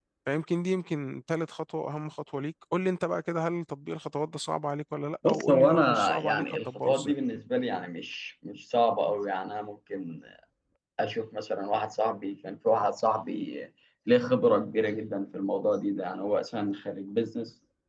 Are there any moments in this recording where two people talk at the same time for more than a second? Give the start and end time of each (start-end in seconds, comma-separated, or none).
5.2-7.1